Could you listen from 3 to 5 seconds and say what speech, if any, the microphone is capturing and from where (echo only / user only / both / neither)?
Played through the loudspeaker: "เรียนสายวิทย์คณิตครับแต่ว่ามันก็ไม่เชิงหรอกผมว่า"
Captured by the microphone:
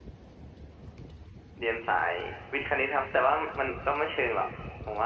echo only